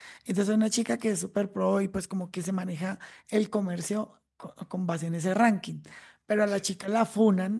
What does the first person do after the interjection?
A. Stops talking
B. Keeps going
B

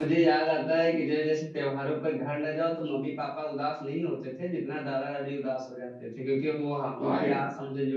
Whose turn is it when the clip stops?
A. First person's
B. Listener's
A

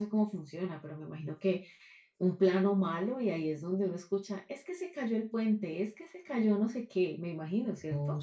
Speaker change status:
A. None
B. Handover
B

